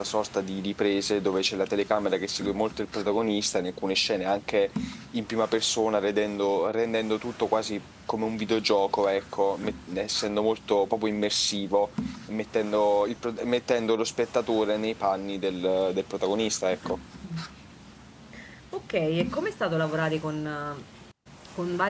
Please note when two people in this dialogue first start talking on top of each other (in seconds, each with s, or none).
none